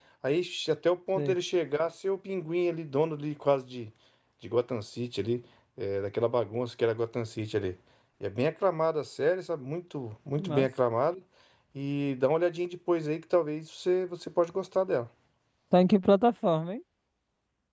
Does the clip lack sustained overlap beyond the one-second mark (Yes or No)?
Yes